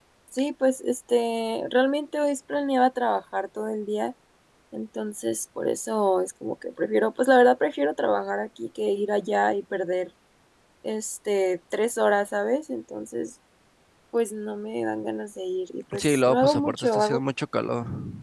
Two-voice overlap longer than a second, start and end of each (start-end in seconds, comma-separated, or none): 16.0-17.2